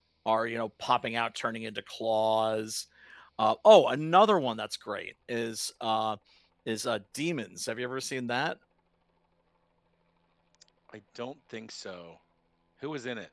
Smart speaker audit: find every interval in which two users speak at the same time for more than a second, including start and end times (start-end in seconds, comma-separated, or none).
none